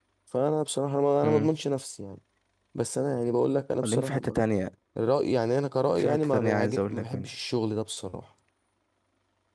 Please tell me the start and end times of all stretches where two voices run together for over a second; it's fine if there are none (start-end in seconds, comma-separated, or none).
6.0-7.3